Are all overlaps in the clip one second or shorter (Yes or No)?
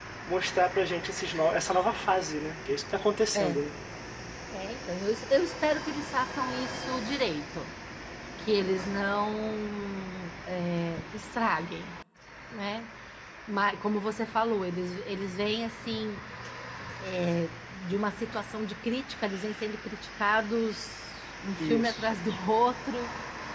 Yes